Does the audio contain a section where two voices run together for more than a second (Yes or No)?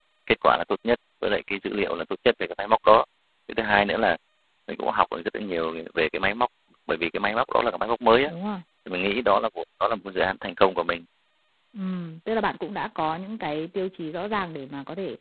No